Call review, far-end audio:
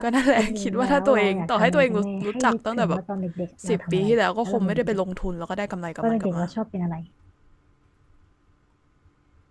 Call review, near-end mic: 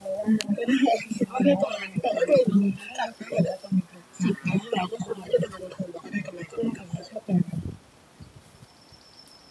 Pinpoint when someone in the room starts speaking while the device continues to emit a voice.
none

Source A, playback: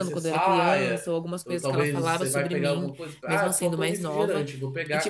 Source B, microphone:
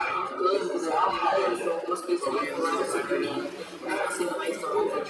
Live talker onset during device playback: none

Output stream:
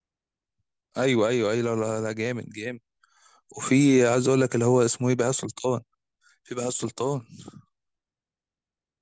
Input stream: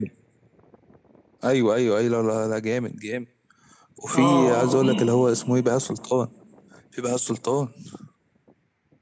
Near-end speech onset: 4.1 s

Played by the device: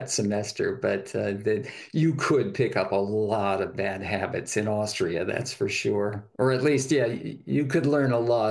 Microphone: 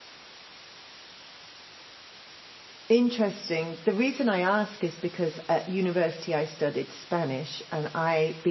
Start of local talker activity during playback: 2.9 s

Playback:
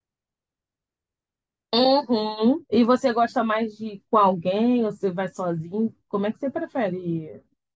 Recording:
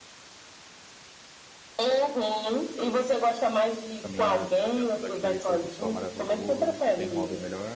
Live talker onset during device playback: 4.0 s

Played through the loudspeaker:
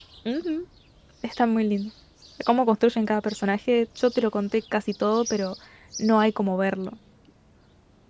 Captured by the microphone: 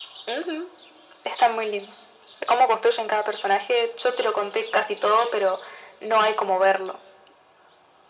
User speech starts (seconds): none

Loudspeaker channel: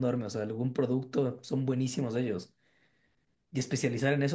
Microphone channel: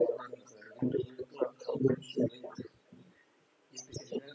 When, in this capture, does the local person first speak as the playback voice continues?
none

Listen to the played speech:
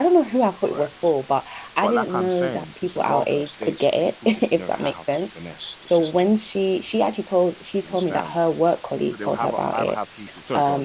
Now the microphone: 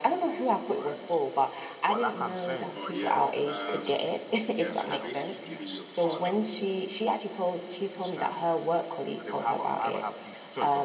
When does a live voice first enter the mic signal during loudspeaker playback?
2.7 s

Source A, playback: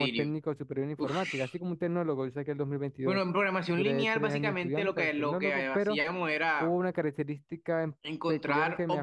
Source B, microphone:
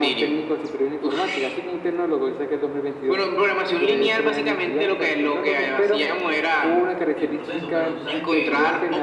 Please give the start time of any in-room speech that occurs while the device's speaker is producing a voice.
6.6 s

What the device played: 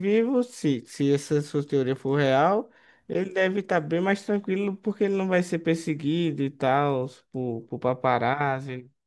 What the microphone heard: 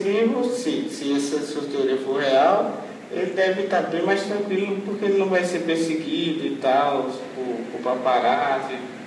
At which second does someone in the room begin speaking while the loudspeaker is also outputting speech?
none

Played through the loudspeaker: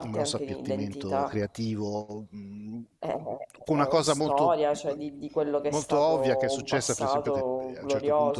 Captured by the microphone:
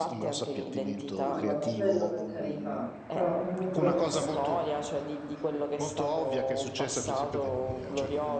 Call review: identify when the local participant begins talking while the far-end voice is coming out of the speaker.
1.2 s

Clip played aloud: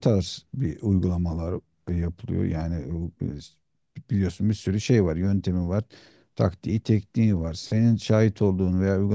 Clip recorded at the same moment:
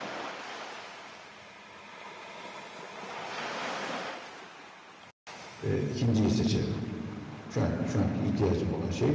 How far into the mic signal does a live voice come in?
5.6 s

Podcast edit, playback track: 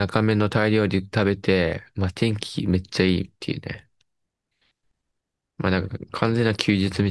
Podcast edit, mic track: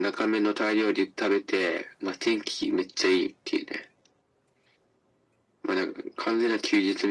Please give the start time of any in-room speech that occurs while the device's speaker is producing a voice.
none

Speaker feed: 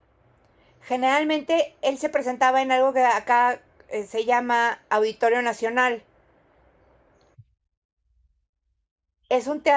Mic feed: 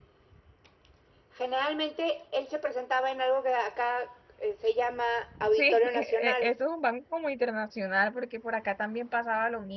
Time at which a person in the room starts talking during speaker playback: 5.6 s

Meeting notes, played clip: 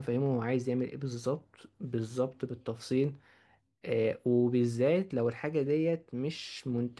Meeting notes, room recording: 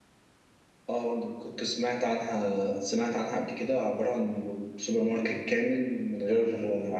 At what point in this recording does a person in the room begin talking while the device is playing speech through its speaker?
0.9 s

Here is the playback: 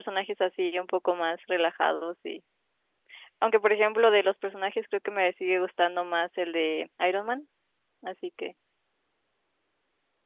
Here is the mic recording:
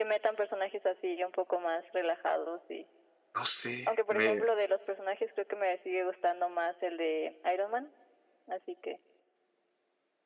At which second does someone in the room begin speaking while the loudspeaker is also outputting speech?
3.3 s

